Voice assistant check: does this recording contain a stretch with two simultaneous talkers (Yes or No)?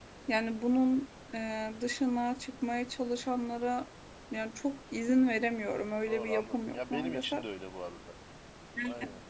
Yes